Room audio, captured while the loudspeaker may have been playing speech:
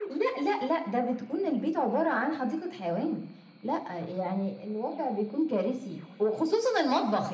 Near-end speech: none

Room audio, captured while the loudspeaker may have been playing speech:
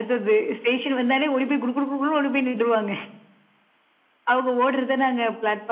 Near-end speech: none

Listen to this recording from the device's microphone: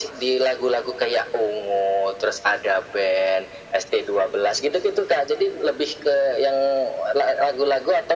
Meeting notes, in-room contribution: none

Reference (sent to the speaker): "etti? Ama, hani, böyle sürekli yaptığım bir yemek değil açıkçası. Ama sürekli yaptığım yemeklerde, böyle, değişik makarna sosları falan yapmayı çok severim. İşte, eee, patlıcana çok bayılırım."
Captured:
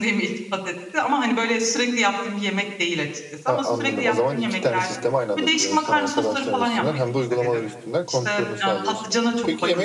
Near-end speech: present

